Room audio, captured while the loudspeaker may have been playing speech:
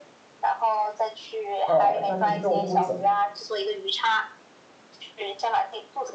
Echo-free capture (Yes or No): No